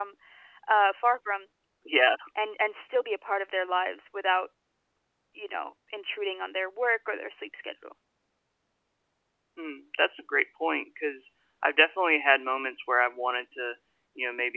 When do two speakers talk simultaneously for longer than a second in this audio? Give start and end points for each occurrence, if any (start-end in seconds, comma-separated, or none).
none